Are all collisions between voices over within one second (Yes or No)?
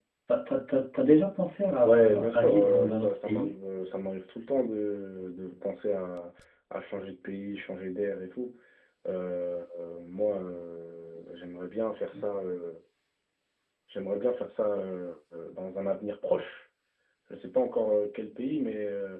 No